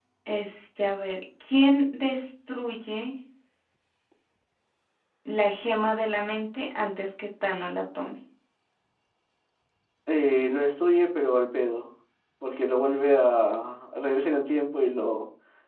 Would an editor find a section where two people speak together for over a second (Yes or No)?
No